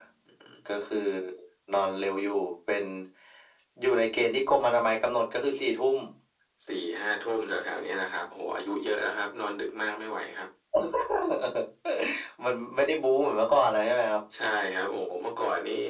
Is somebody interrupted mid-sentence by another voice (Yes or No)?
No